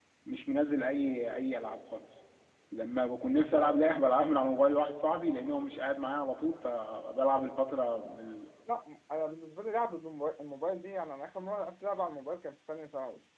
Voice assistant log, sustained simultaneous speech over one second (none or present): none